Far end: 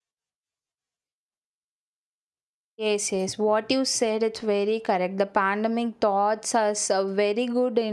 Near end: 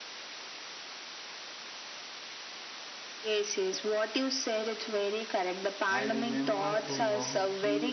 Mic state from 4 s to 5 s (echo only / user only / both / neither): echo only